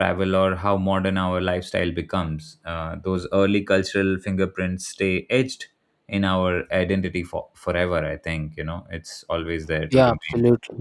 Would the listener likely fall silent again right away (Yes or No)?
No